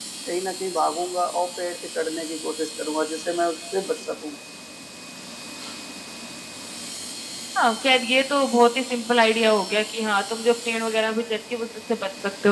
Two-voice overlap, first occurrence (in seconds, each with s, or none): none